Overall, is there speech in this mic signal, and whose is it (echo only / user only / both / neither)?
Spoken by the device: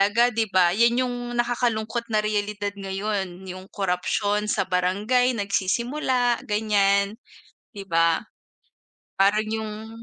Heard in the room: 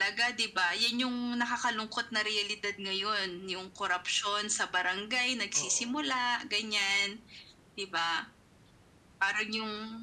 both